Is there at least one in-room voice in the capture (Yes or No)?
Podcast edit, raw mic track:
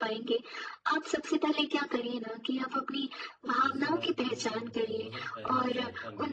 Yes